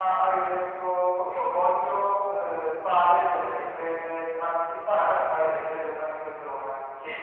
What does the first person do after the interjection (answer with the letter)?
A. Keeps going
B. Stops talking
B